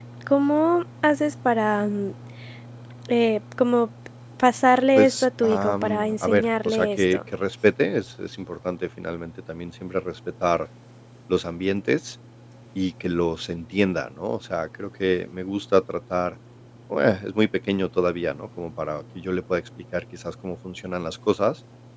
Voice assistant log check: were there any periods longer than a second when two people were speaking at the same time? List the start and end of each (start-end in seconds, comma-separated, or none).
5.0-7.2